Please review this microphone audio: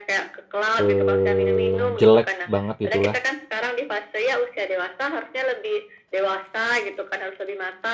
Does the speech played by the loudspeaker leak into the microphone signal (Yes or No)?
Yes